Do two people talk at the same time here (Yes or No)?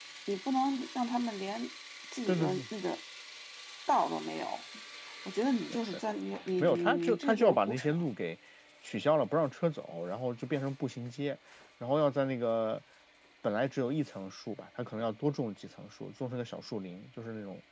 Yes